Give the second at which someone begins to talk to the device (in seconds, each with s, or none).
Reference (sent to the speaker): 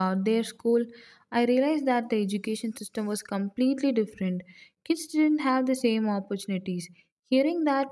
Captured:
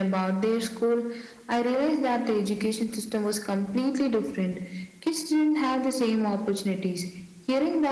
none